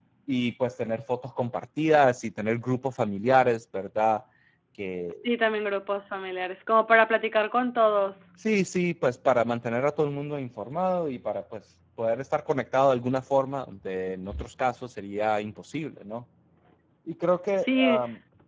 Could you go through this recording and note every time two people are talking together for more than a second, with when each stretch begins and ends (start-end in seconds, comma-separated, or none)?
none